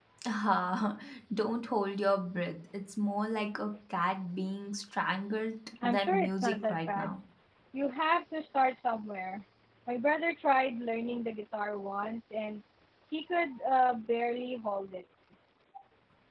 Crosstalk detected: Yes, from 5.8 s

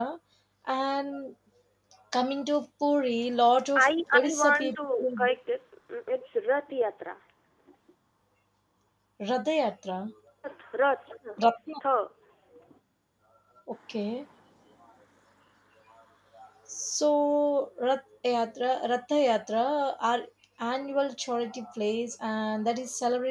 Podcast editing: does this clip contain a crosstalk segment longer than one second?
Yes, from 3.8 s

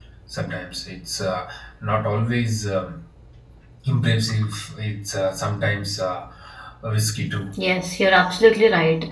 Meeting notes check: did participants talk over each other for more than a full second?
No

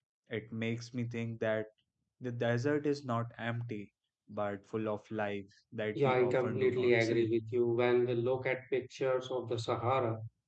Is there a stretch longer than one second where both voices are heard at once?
Yes, from 6.0 s

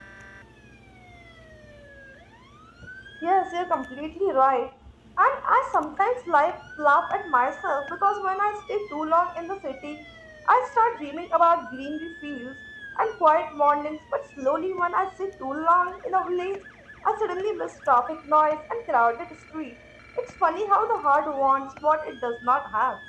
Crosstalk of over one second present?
No

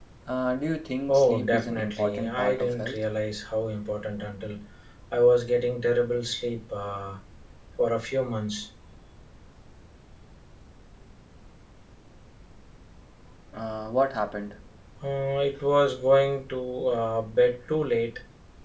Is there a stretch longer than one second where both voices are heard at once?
Yes, from 1.1 s

